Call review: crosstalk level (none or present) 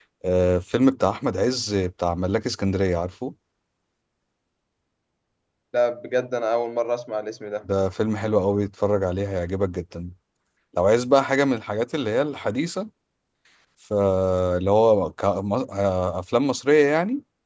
none